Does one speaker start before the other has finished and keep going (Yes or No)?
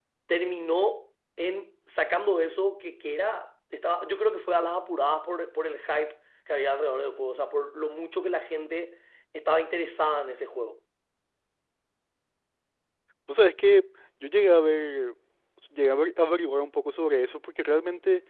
No